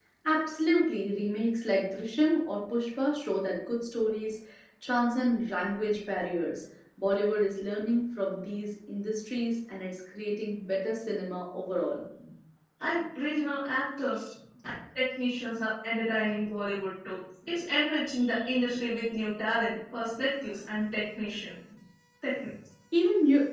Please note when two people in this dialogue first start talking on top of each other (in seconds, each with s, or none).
none